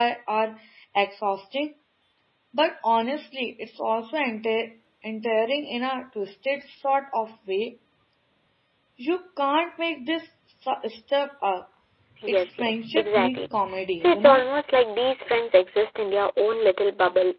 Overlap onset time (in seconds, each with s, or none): 12.3 s